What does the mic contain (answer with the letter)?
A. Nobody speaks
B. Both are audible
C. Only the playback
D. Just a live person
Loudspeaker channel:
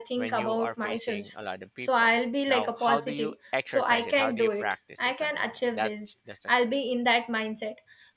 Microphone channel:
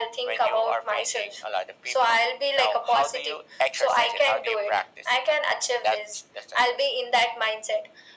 C